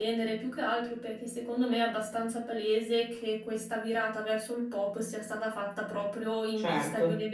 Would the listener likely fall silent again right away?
Yes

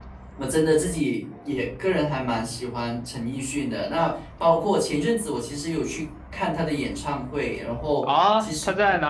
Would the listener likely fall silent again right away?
No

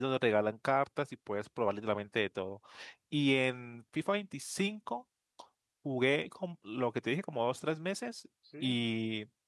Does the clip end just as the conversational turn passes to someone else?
No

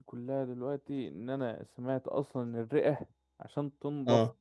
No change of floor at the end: Yes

